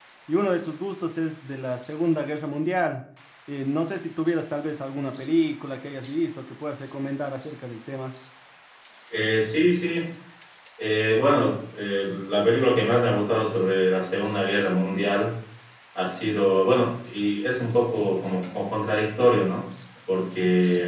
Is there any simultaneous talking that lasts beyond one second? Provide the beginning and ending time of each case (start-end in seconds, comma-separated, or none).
none